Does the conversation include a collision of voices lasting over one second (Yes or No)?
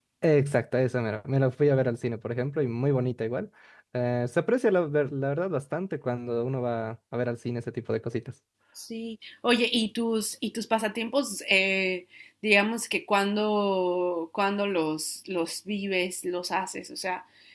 No